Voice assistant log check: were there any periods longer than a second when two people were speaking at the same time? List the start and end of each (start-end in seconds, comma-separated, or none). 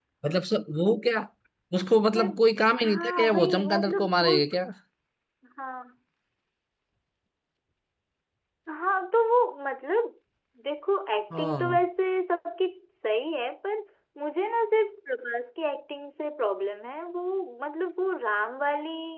2.8-4.4